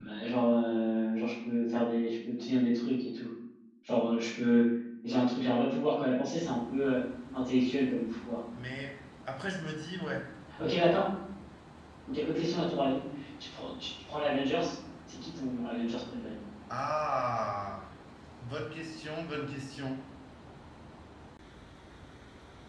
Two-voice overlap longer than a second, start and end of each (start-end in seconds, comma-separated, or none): none